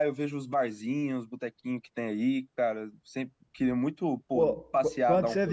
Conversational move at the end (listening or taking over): taking over